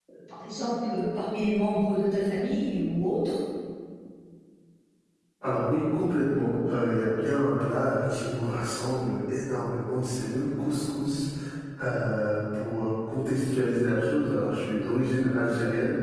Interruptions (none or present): none